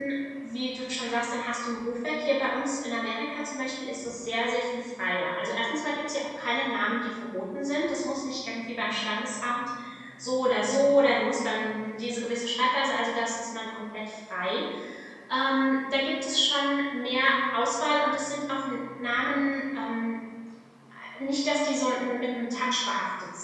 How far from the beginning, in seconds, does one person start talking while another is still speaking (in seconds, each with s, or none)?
none